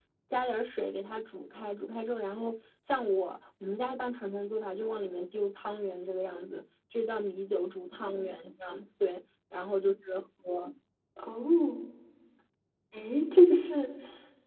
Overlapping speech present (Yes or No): No